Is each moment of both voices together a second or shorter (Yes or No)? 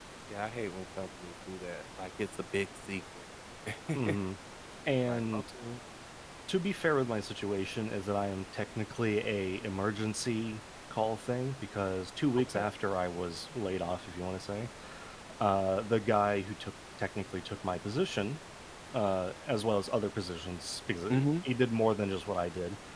Yes